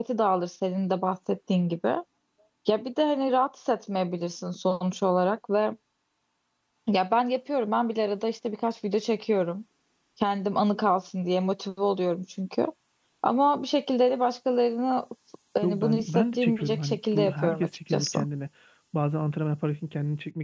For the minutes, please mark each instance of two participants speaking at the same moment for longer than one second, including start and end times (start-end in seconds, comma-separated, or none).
15.6-18.2